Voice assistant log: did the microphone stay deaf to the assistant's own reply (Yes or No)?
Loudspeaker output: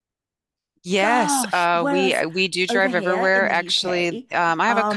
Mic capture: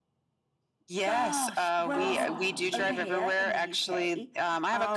No